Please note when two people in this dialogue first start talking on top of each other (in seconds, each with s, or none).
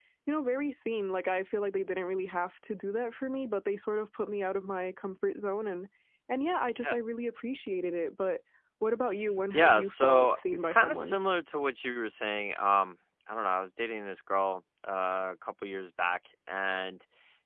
9.5 s